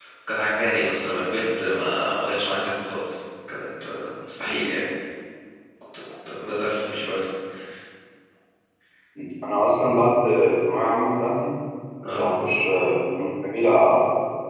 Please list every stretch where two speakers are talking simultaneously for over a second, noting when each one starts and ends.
none

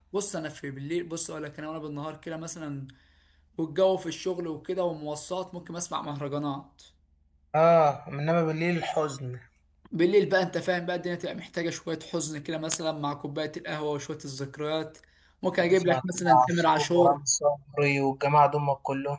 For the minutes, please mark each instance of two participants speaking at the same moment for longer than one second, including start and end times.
15.6-17.2

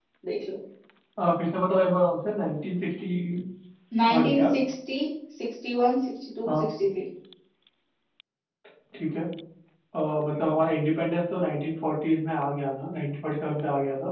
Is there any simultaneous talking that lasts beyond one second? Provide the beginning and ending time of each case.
none

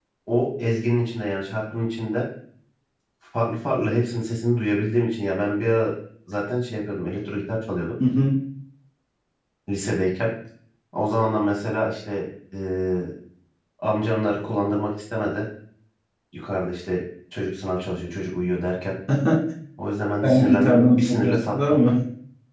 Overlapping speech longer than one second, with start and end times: 20.2-21.8

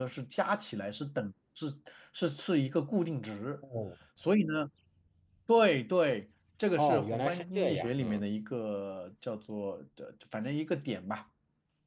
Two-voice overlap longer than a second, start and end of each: 6.8-8.2

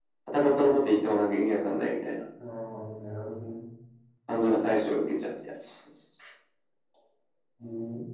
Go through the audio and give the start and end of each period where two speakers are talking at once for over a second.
none

